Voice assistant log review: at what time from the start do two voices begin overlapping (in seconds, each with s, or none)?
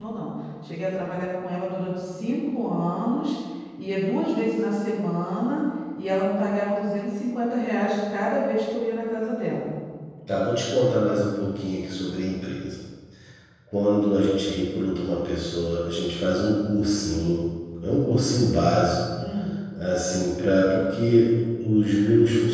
none